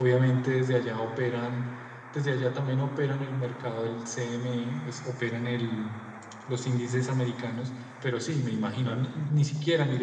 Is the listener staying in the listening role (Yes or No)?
Yes